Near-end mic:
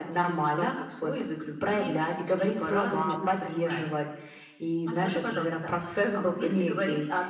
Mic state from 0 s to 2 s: echo only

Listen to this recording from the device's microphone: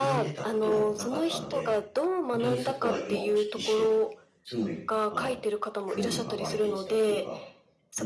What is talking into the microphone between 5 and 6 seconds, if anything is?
both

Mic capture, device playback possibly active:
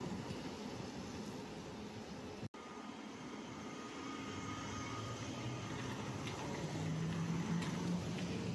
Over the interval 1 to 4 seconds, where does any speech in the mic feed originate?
neither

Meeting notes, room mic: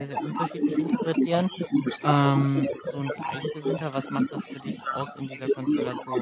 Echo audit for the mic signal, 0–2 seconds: both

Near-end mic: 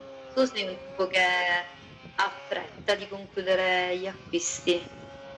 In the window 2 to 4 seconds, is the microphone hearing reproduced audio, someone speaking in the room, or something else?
echo only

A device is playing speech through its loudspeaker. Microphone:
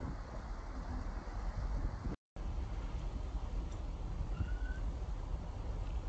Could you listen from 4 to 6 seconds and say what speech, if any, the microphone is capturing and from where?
neither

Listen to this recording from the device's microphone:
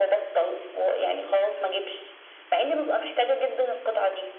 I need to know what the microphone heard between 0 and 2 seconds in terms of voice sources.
echo only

